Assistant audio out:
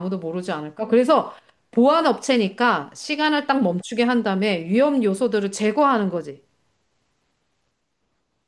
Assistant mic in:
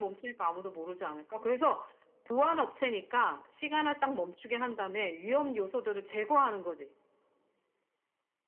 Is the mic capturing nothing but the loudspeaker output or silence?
Yes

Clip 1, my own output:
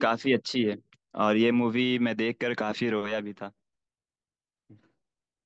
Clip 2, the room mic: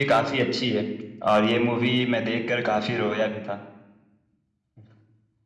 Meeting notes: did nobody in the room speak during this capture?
Yes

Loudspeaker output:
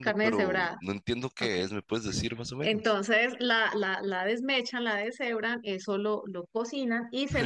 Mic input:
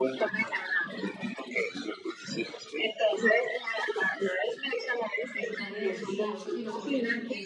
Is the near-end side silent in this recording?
No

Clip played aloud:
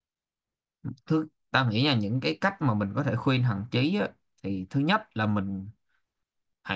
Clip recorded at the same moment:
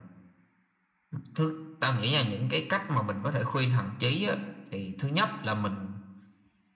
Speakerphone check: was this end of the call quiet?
Yes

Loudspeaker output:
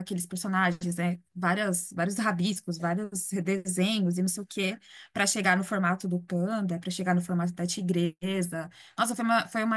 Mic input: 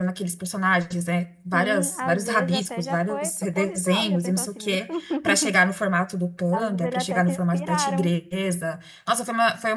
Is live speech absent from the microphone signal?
No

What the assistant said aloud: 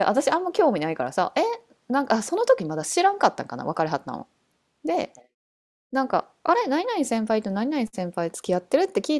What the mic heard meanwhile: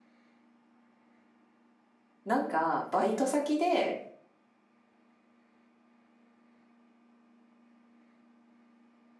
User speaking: Yes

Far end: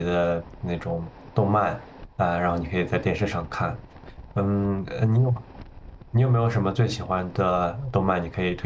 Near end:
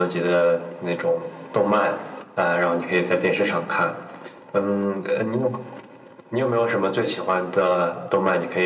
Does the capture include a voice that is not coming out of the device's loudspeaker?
No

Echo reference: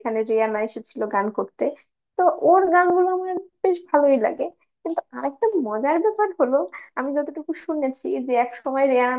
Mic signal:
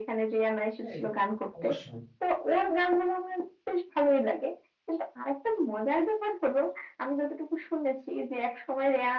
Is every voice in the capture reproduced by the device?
No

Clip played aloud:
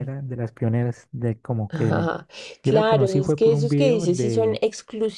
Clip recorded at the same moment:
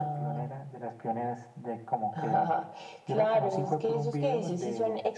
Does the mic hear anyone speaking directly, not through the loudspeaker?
No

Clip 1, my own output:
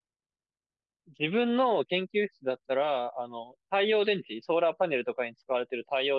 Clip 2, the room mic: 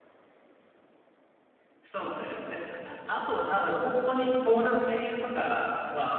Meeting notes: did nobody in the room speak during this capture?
No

